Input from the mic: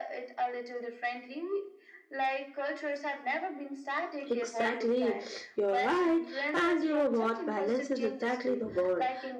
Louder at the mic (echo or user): user